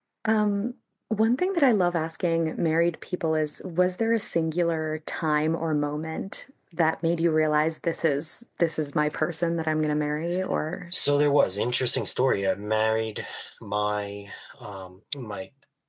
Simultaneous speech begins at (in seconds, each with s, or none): none